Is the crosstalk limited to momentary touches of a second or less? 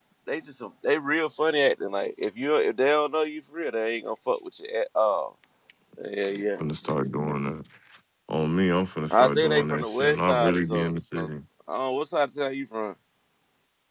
No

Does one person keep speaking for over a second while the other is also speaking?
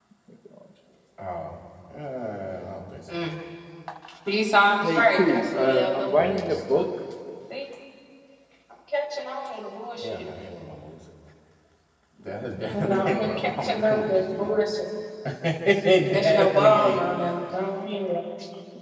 Yes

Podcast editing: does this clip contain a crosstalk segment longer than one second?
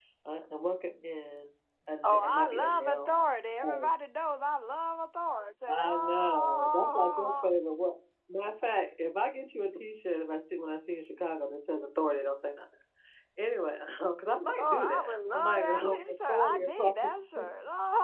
Yes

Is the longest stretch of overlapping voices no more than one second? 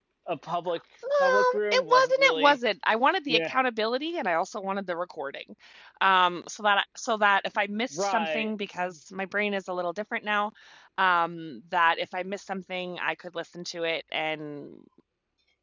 No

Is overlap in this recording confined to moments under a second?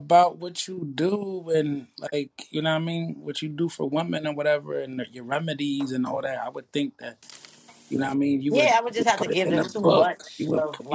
No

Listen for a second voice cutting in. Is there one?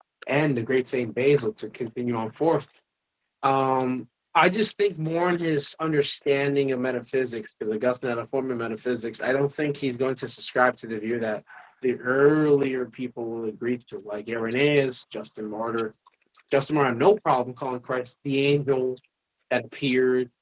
No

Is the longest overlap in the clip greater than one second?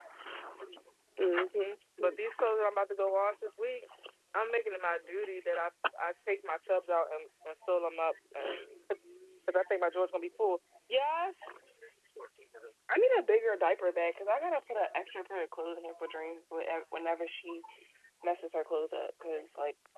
No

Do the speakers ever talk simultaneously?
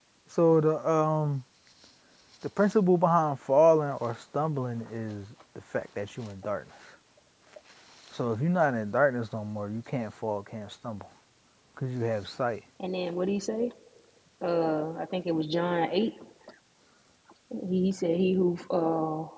No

